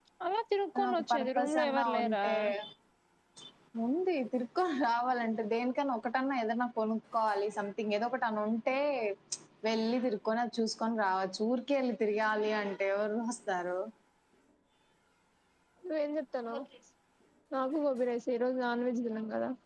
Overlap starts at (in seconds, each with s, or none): 0.8 s